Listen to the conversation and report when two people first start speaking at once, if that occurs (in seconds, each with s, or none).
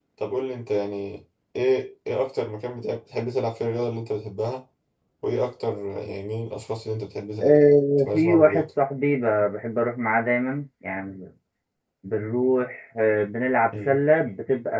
7.4 s